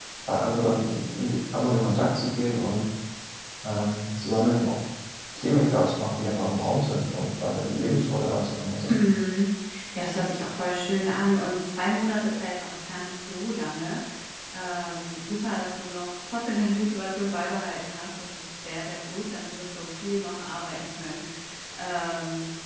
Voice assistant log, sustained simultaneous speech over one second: none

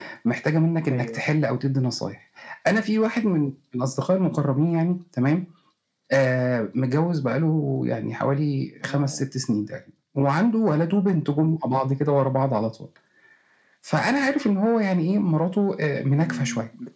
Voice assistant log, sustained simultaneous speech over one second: none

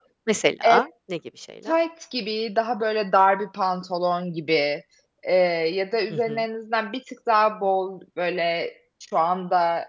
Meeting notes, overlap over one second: none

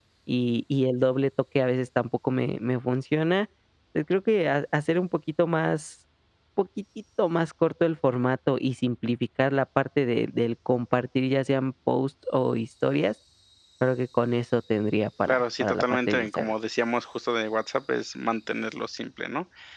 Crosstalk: present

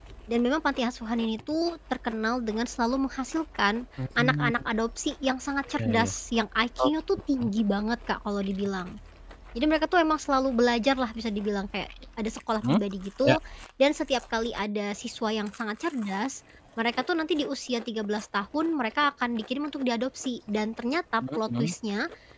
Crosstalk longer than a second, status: none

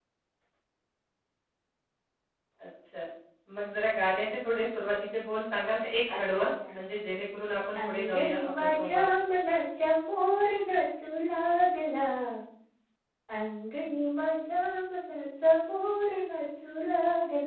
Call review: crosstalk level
present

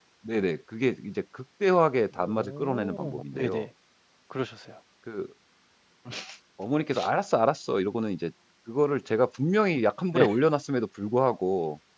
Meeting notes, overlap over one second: present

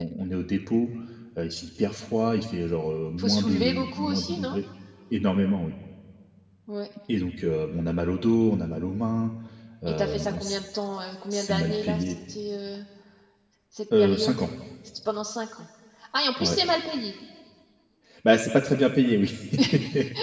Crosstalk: present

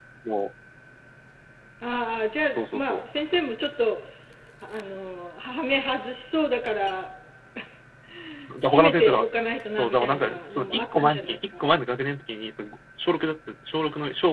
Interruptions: present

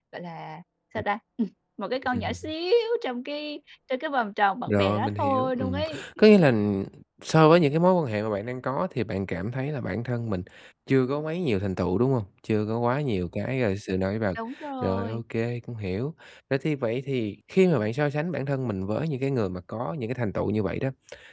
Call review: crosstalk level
present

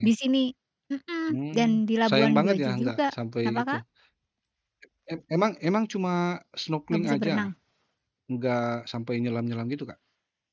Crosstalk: present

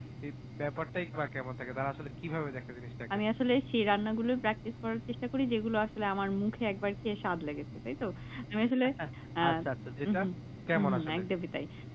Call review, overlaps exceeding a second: none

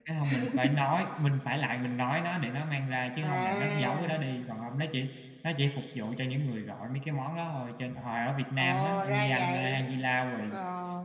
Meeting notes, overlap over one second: present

